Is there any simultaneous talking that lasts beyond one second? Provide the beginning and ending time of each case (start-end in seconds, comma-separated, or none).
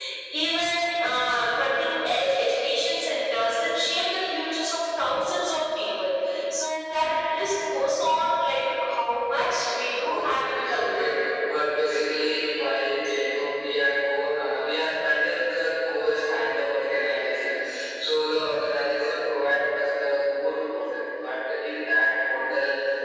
9.9-11.2